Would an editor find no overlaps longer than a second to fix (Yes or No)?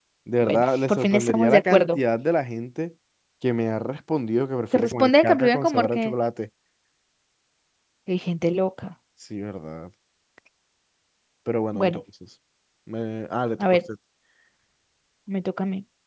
No